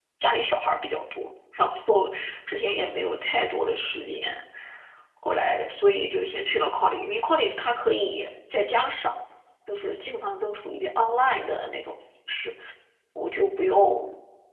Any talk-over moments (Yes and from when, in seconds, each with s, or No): No